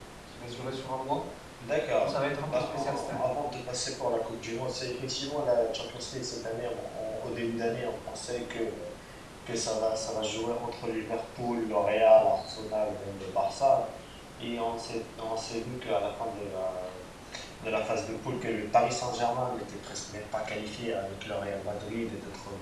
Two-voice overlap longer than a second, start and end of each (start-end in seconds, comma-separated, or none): 2.0-3.2